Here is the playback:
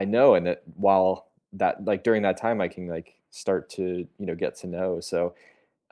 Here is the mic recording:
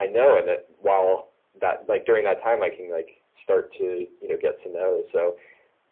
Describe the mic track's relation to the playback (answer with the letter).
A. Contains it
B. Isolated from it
A